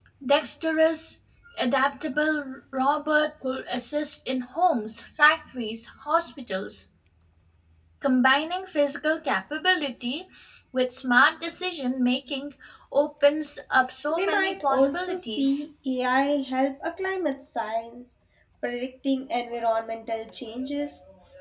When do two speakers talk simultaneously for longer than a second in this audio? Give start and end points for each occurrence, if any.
14.1-15.6

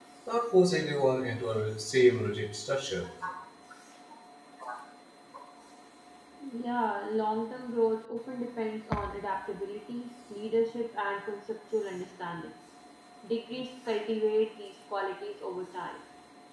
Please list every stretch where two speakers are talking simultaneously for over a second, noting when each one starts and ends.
none

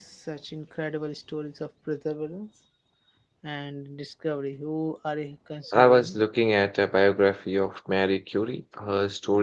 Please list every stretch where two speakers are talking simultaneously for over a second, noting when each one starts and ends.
none

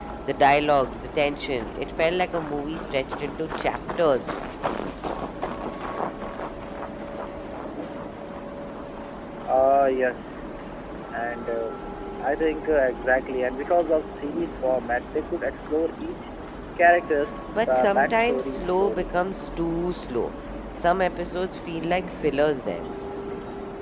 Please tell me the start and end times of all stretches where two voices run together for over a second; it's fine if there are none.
17.6-19.1

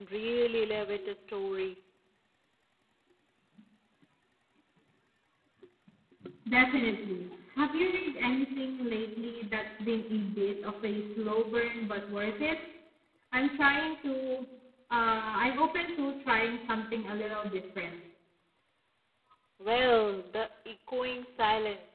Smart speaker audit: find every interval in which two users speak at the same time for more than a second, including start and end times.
none

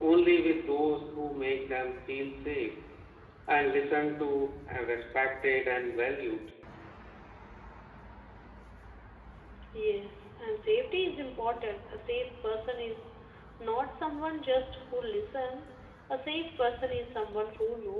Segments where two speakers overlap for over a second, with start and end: none

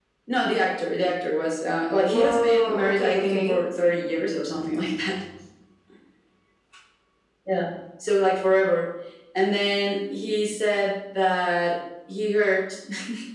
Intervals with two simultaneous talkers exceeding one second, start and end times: 2.0-3.6

